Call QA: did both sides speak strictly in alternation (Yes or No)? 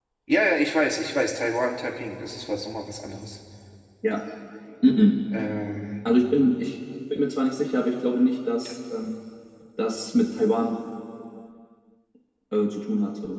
Yes